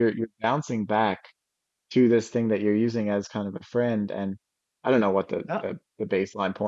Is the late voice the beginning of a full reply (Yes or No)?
No